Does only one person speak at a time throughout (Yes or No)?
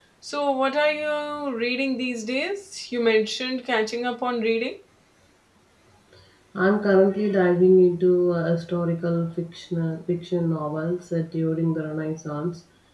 Yes